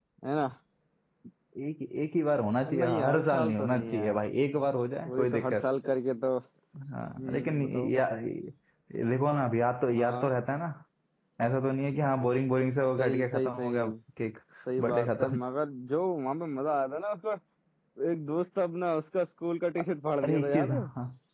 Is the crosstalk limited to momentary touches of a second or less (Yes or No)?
No